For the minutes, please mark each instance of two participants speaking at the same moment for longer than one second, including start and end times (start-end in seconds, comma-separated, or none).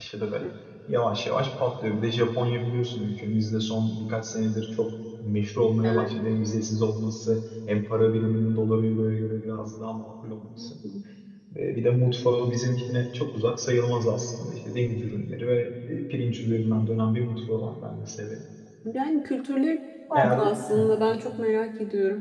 none